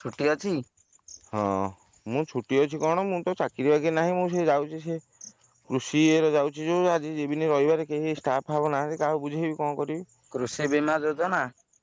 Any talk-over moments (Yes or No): No